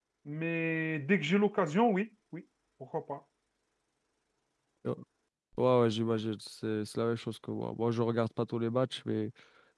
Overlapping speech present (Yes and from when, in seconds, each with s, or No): No